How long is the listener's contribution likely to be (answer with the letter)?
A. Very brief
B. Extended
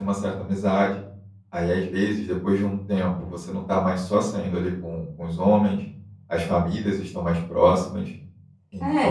B